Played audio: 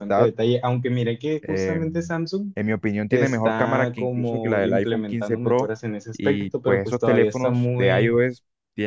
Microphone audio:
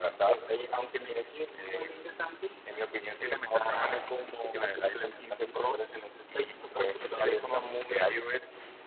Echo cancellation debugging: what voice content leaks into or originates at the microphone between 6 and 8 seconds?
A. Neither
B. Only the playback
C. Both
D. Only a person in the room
B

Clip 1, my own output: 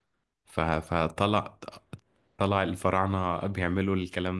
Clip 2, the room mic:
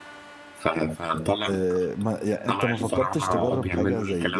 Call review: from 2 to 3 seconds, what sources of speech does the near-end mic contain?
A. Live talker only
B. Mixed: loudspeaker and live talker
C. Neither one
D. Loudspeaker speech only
B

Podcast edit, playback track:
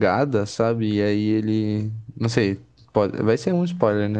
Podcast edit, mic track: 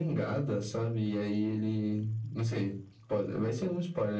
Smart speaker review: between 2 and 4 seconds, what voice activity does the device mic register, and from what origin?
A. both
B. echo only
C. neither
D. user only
B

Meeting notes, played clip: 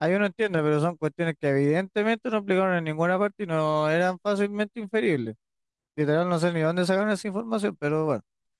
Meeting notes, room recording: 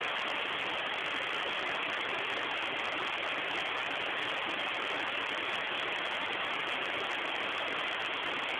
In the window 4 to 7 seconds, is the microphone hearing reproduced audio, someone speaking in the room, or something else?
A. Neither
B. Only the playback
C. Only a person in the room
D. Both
A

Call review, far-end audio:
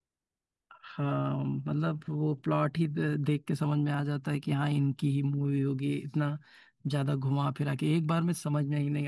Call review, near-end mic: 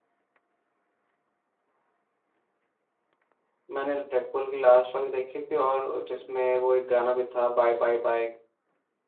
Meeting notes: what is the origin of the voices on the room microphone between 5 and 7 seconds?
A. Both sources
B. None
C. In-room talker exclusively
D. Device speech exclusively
C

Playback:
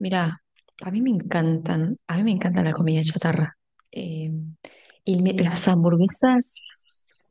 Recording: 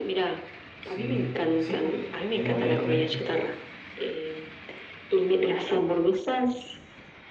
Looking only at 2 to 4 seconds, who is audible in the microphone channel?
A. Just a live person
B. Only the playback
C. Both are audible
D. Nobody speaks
C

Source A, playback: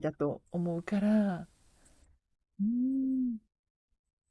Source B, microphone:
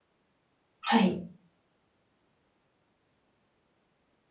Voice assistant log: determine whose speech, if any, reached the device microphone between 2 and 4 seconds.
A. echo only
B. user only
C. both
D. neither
D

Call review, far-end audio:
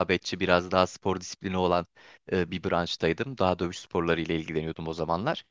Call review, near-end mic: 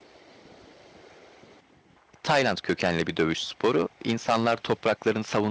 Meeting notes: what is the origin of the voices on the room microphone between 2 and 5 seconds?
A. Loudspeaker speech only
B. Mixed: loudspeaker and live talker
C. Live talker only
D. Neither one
C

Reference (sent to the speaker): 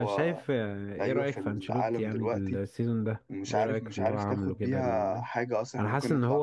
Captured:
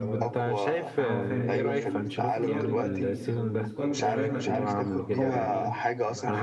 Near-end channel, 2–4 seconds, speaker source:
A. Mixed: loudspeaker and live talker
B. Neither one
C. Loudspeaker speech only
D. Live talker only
A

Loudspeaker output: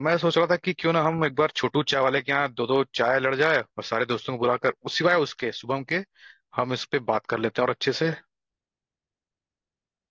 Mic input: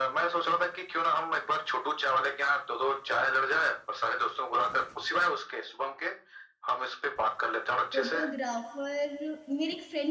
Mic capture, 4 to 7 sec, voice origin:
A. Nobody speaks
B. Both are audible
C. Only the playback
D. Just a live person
C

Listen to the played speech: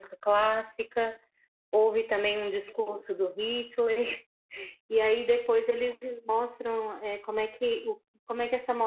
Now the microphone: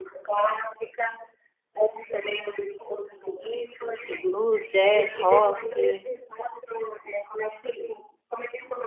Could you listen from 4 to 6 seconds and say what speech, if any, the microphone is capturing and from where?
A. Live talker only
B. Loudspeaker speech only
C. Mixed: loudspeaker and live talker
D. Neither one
C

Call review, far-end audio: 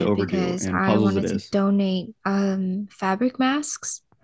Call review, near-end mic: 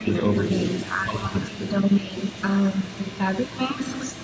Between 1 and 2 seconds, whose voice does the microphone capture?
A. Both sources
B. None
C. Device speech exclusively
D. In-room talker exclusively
C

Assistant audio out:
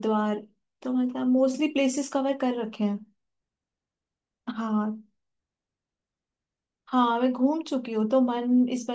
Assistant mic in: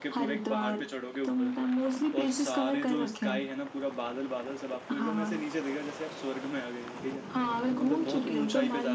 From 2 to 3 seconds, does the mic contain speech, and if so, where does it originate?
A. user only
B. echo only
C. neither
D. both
D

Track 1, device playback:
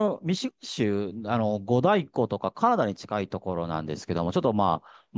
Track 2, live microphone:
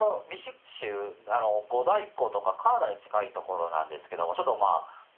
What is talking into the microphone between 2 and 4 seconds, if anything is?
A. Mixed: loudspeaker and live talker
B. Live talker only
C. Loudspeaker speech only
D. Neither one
C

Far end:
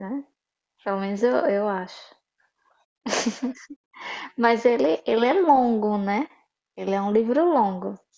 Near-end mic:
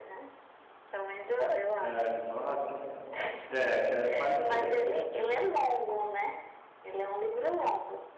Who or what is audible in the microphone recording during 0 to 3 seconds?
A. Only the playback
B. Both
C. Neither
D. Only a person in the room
B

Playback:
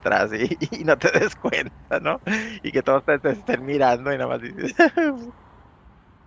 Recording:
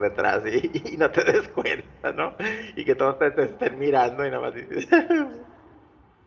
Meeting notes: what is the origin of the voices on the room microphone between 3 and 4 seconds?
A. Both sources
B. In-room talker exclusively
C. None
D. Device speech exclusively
D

